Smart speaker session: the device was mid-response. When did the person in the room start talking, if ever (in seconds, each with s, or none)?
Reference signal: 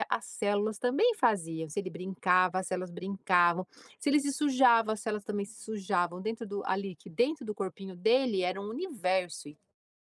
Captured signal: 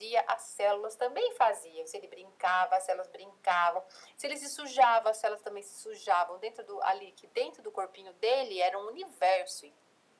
none